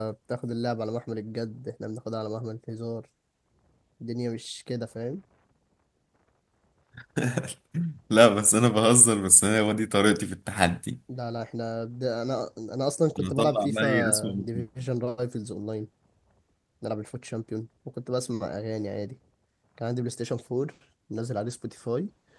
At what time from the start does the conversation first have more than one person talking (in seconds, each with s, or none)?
13.2 s